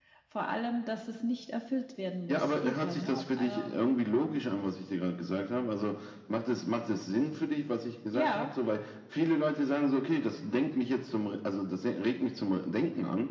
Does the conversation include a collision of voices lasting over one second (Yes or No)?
Yes